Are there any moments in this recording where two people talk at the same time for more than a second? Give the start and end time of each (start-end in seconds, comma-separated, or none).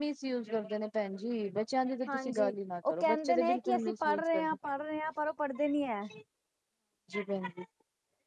2.9-4.6